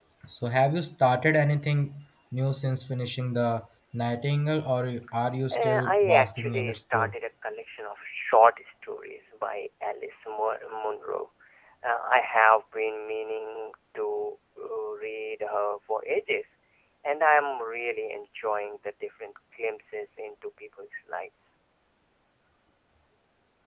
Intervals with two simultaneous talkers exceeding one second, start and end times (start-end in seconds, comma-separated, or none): 5.5-7.1